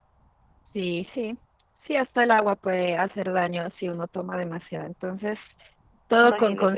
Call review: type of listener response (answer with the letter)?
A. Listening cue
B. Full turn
A